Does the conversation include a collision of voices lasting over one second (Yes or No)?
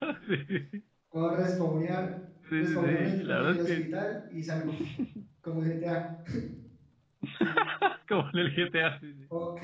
Yes